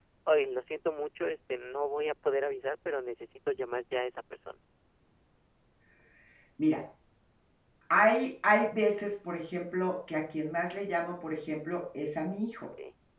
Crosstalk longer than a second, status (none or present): none